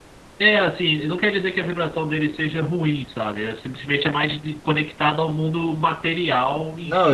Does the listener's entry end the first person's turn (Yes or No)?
Yes